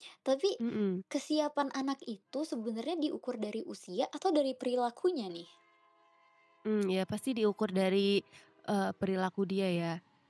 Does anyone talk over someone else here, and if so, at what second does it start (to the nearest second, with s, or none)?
none